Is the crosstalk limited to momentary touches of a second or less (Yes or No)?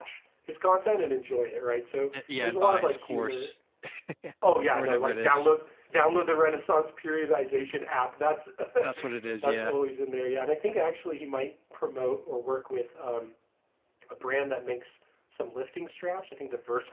No